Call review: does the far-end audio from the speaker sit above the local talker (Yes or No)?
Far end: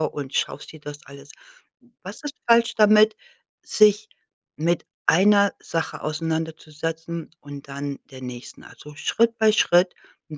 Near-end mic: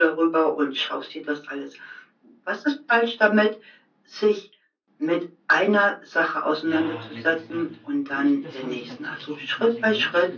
Yes